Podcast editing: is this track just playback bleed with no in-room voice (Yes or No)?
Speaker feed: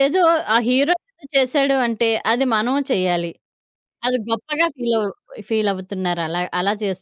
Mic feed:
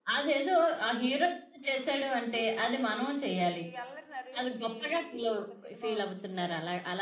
No